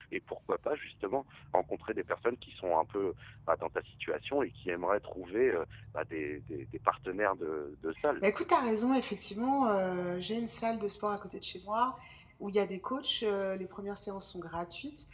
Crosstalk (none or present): none